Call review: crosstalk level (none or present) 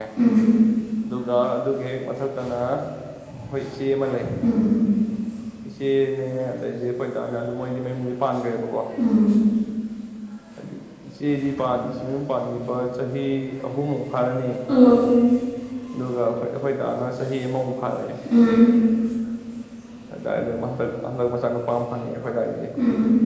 none